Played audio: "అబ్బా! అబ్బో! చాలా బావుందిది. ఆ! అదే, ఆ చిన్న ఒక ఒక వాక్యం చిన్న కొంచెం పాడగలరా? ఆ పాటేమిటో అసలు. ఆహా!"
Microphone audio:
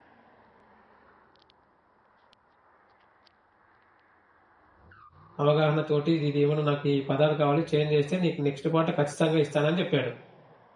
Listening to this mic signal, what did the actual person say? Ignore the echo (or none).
అవగాహన తోటి, ఇదిదేమన్నా నాకు ఈ పదాలు కావాలి, చేంజ్ చేస్తే, నీకు నెక్స్ట్ పాట ఖచ్చితంగా ఇస్తానని జెప్పాడు.